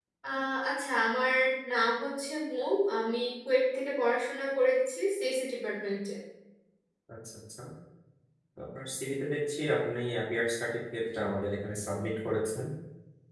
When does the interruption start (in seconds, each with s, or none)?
none